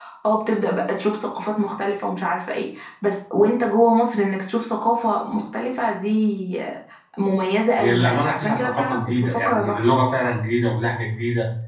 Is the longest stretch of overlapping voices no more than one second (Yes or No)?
No